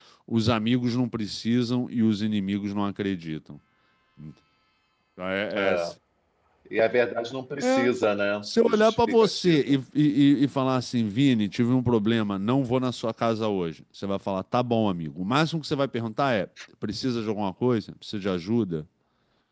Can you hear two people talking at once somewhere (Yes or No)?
Yes